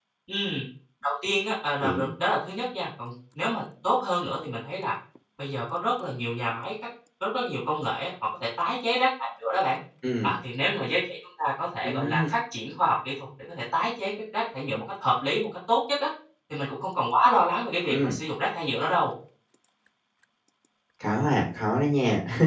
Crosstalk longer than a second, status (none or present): none